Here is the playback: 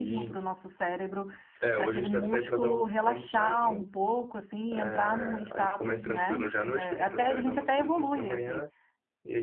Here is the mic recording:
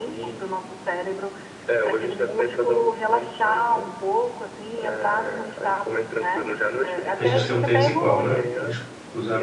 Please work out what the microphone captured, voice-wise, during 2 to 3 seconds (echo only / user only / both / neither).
echo only